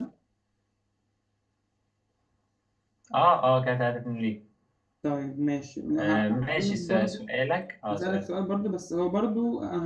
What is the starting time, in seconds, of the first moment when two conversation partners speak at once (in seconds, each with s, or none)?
5.9 s